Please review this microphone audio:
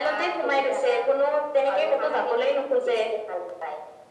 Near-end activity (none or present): none